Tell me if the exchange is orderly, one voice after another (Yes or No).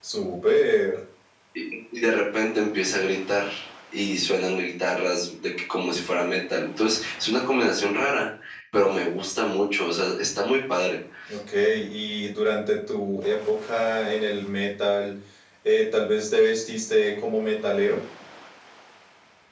Yes